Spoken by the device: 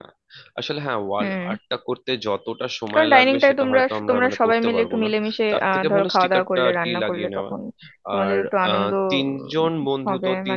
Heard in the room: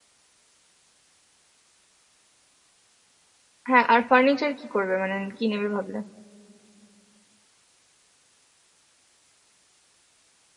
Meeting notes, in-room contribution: present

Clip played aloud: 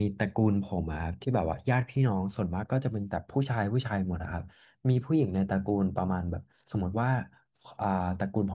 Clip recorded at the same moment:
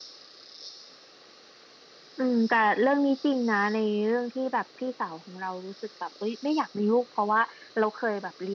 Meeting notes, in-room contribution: present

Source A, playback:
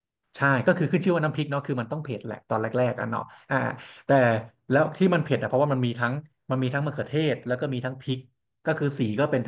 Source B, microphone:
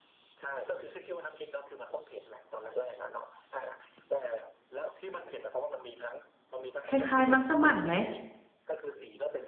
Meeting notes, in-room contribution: present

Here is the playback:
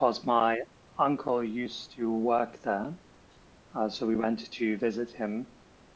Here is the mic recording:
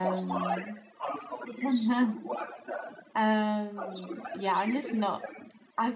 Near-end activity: present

